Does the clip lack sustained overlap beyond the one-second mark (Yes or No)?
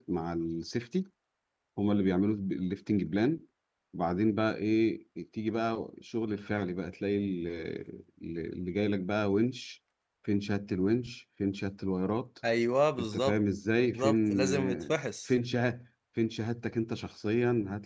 No